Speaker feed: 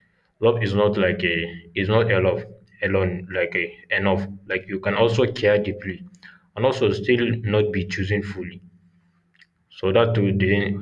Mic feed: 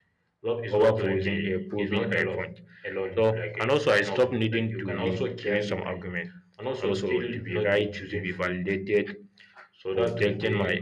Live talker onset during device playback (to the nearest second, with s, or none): 1 s